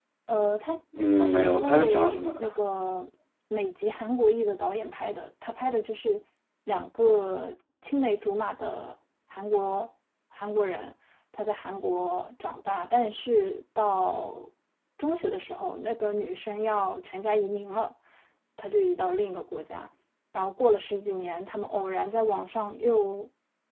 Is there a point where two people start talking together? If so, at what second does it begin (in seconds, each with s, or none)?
1.1 s